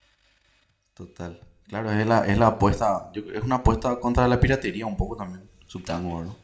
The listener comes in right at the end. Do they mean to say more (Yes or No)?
Yes